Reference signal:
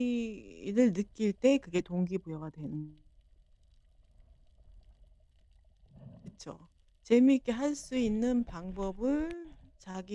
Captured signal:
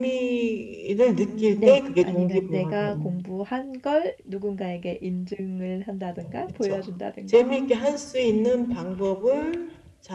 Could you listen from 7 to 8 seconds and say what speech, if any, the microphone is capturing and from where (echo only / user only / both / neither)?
both